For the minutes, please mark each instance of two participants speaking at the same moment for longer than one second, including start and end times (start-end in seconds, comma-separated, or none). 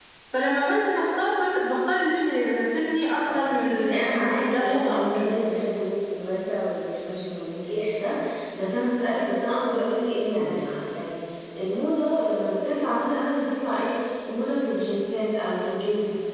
3.3-5.4